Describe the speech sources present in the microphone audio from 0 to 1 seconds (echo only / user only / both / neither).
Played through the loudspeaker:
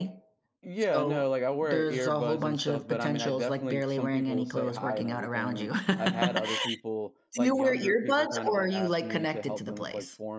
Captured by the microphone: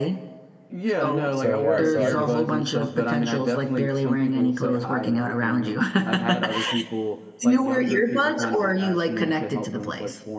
echo only